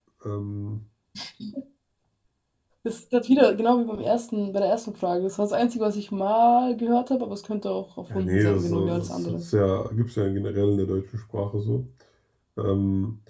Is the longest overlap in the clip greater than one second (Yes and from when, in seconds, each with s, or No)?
Yes, from 8.1 s